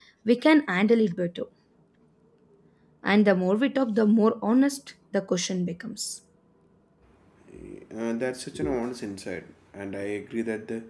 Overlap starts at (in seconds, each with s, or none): none